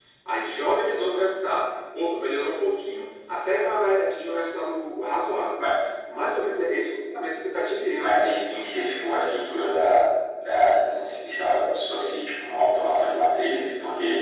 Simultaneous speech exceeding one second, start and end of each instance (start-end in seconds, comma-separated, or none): none